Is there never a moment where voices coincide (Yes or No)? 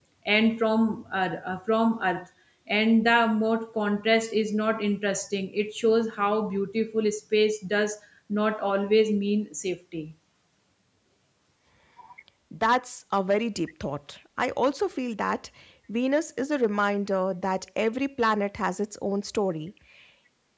Yes